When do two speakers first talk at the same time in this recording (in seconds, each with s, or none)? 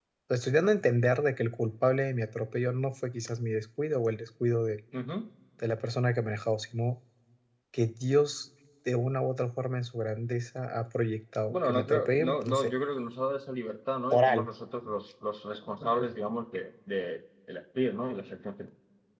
11.5 s